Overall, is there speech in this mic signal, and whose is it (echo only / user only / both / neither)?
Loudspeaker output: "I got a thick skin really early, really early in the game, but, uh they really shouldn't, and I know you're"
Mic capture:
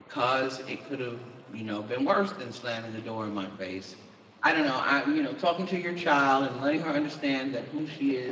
user only